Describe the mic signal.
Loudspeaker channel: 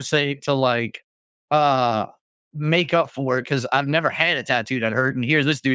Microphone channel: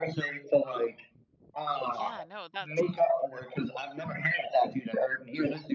both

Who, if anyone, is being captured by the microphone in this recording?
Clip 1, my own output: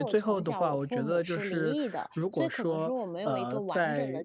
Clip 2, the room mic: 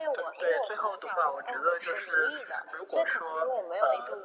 echo only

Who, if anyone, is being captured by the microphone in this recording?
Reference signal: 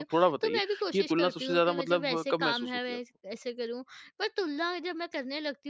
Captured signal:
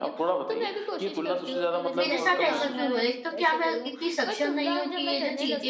both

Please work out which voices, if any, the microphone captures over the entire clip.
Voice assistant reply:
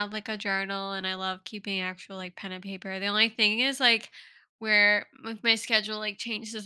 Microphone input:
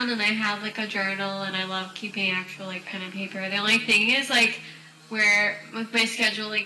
echo only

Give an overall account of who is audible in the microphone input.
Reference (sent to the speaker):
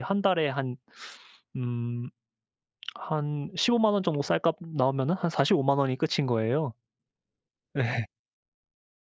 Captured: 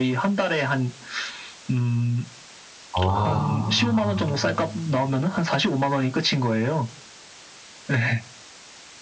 both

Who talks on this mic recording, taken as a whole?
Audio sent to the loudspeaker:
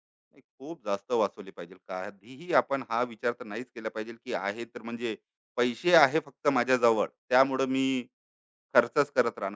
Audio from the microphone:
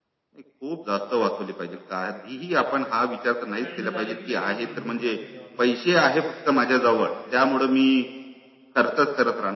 both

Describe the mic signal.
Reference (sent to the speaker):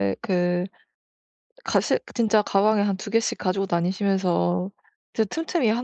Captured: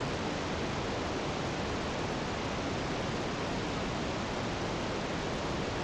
neither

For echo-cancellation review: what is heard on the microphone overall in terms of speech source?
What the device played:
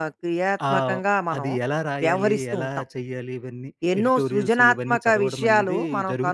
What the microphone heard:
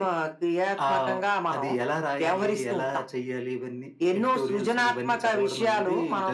echo only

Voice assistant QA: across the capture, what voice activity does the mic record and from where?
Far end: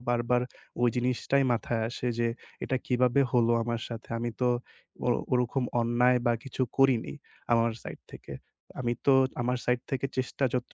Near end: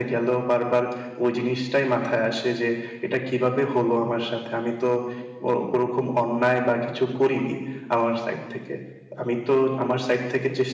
echo only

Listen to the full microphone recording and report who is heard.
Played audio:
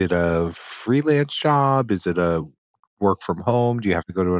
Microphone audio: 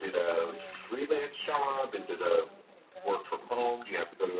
both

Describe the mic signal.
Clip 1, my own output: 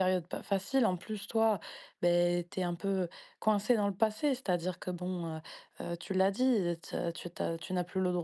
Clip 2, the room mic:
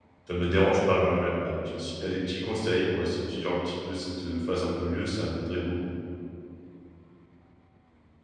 user only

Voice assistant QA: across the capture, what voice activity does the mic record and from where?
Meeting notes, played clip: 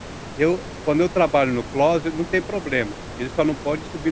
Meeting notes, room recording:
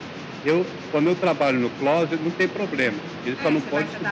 both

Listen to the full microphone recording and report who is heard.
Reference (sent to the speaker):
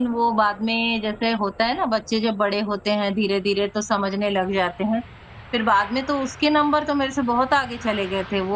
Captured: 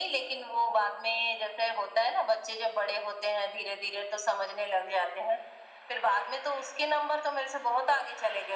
echo only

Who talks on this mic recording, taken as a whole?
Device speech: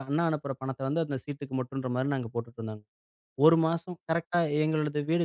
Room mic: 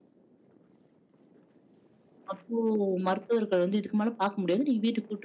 user only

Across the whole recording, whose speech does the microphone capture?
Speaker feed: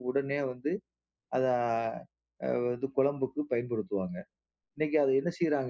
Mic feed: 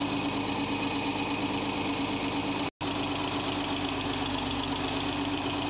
neither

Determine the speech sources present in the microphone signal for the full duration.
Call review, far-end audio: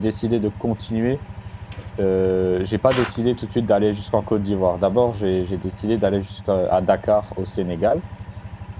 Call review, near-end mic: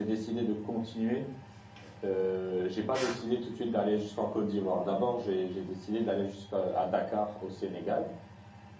echo only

